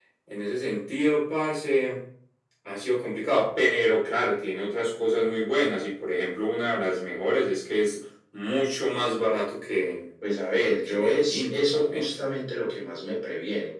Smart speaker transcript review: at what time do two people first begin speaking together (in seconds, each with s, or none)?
10.8 s